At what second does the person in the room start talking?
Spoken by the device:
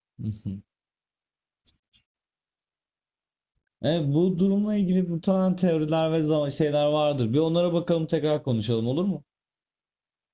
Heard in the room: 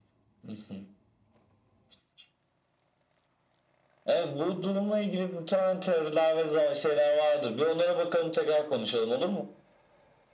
none

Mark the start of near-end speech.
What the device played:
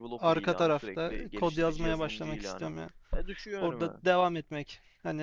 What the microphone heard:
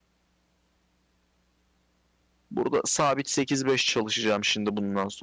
2.5 s

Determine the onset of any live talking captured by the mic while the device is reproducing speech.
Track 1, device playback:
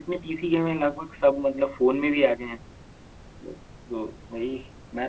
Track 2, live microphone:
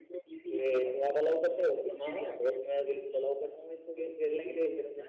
0.5 s

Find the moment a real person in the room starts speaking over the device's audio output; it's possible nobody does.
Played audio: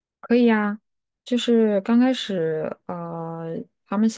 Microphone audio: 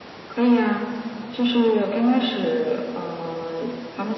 none

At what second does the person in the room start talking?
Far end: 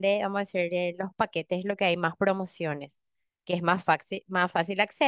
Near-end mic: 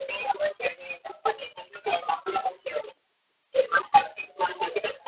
none

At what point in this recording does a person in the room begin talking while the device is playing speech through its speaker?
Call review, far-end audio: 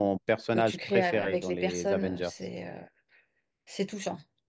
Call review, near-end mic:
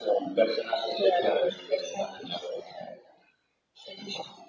none

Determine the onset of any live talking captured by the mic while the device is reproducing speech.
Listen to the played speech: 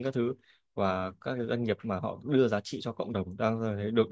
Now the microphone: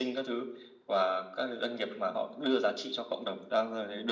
none

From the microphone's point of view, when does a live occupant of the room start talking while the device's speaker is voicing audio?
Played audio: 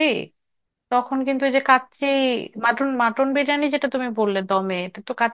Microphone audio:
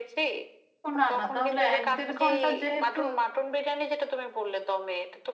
0.9 s

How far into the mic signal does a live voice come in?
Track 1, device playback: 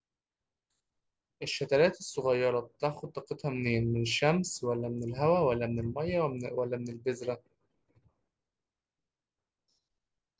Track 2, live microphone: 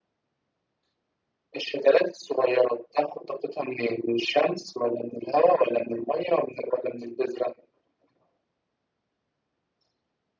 none

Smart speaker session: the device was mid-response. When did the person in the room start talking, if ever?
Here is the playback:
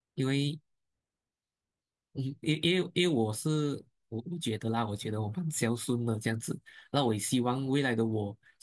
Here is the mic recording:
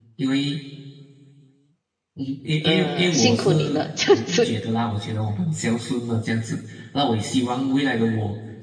2.6 s

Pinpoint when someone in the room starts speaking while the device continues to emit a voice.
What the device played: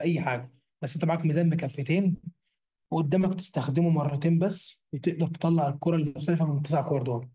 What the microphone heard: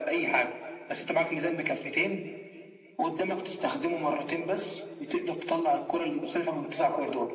none

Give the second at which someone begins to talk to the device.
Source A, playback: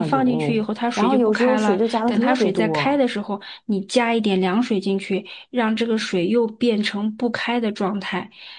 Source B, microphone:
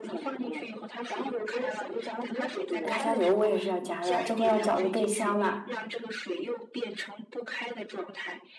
2.8 s

